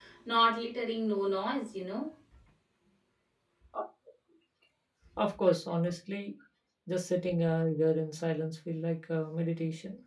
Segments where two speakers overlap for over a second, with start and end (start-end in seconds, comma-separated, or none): none